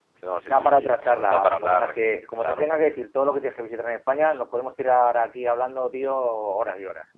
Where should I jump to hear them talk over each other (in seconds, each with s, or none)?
0.5 s